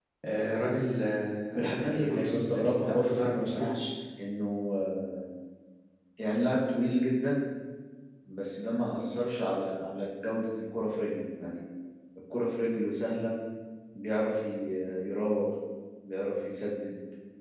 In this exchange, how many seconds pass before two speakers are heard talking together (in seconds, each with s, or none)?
1.5 s